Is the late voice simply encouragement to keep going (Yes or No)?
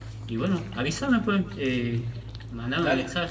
Yes